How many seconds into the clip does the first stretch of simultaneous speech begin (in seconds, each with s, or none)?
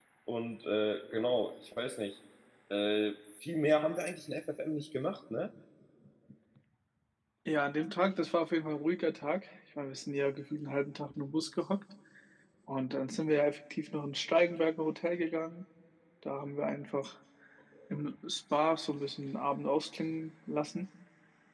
none